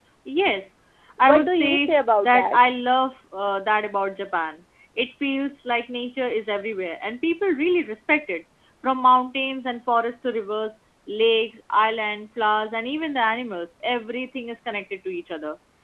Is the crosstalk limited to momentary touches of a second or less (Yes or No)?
No